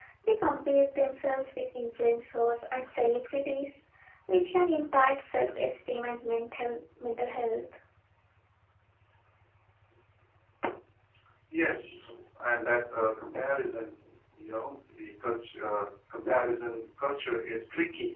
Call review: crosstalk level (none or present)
none